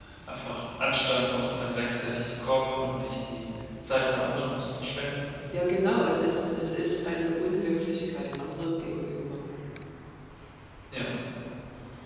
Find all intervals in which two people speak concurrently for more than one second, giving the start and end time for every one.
none

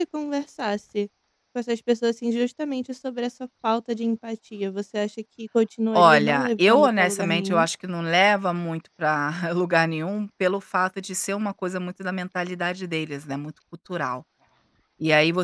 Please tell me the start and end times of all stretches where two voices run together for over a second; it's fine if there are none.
5.9-7.7

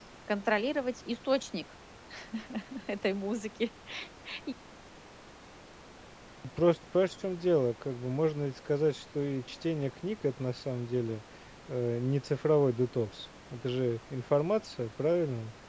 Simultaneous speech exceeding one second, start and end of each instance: none

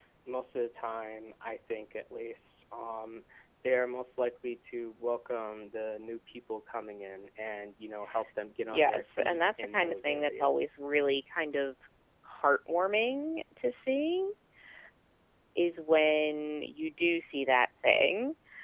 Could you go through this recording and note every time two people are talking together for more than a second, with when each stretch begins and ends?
8.7-10.8

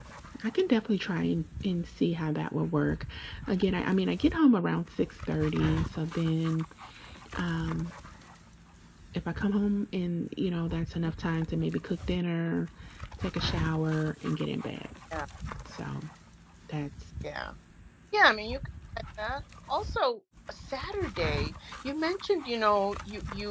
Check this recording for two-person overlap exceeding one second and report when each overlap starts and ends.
none

